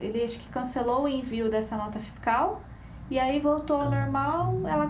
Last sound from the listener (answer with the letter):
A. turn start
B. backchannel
B